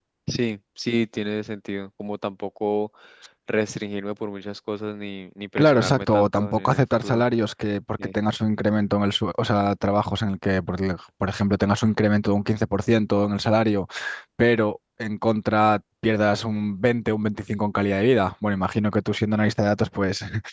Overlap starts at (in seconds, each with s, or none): 5.6 s